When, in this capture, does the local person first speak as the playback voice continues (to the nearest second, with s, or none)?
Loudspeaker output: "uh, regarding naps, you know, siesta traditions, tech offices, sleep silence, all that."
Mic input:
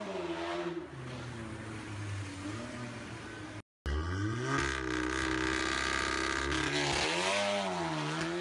none